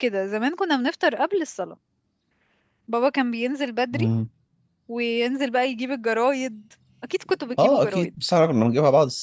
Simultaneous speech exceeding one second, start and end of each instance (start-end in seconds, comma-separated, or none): none